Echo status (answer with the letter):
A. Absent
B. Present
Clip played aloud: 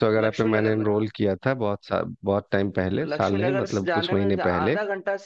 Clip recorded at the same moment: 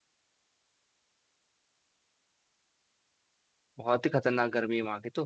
A